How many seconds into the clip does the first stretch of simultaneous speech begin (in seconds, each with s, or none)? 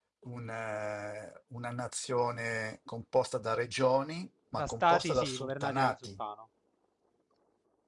4.5 s